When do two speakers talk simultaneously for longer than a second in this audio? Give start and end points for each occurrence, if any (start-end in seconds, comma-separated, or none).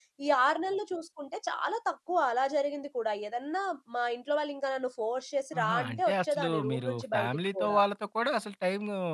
5.6-7.8